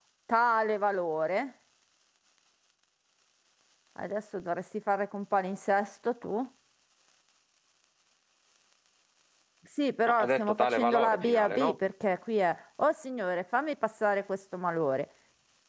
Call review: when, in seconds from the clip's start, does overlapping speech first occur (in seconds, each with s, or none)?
10.2 s